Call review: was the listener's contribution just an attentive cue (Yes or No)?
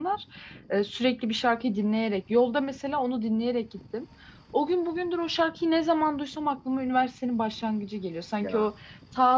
Yes